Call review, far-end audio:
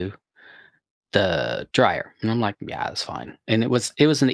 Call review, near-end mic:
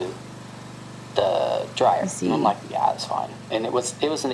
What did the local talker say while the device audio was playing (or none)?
I see.